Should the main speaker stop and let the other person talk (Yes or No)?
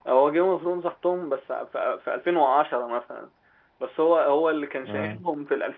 No